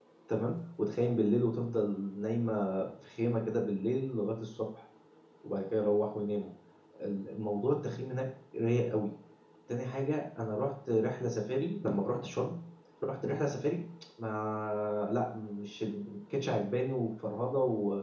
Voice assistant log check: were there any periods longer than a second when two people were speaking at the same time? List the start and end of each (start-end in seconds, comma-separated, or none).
none